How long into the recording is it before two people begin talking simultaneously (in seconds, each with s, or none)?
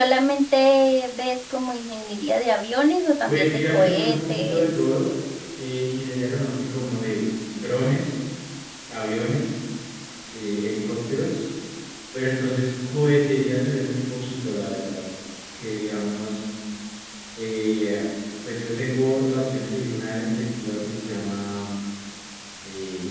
3.3 s